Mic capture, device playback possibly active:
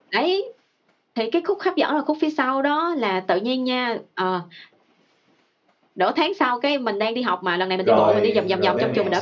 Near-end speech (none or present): present